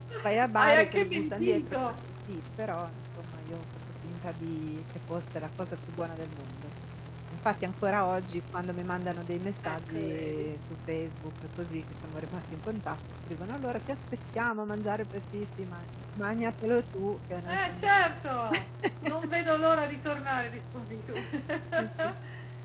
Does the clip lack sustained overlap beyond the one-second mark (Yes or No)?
No